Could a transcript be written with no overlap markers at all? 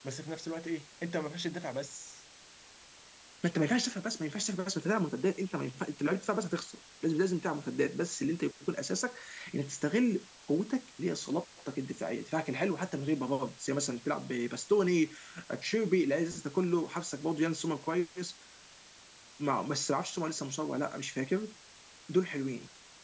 Yes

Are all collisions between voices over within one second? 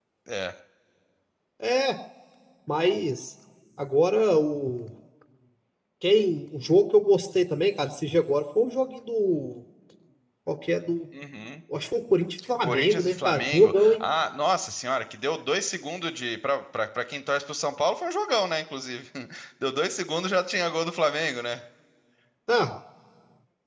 No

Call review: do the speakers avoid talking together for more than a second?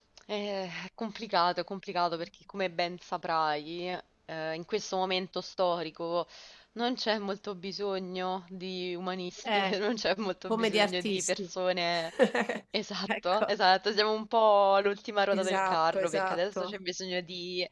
No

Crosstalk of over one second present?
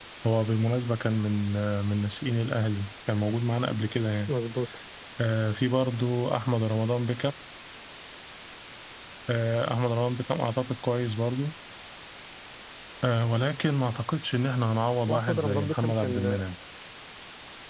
Yes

